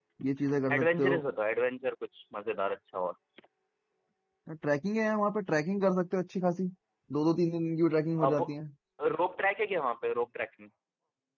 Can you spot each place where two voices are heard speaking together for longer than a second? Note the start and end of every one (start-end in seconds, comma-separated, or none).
none